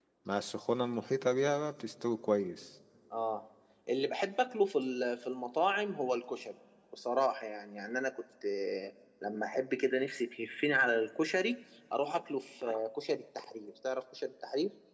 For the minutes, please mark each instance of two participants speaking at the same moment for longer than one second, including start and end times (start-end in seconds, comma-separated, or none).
none